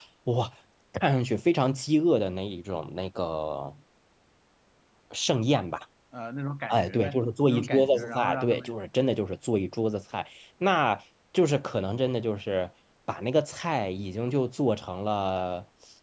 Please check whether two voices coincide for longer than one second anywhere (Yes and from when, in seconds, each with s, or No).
Yes, from 6.7 s